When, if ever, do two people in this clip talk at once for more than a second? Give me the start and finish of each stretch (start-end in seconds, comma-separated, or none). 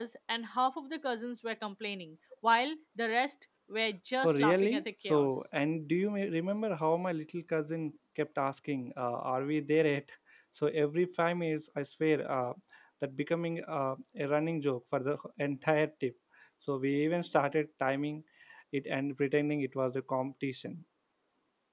4.2-5.4